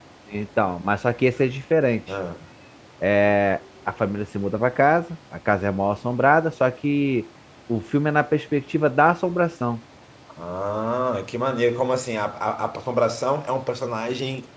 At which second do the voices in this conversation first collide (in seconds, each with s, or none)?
none